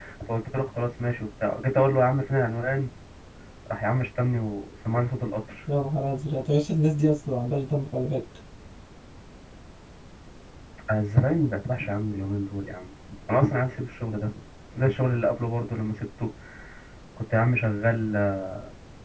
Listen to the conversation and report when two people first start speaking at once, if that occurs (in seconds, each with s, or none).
none